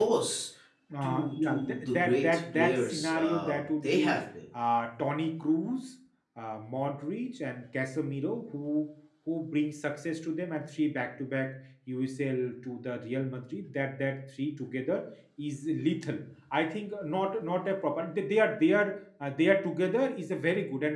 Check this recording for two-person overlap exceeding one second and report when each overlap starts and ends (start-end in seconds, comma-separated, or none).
1.0-4.2